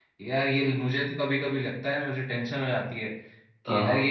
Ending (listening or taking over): listening